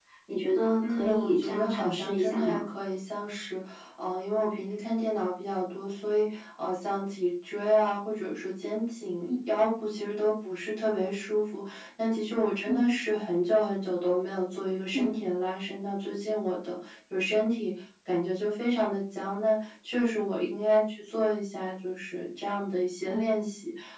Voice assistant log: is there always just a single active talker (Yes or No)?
No